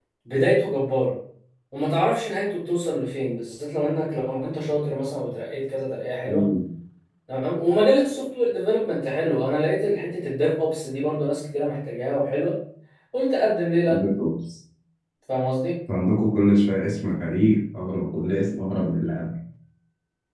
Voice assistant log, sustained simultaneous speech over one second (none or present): none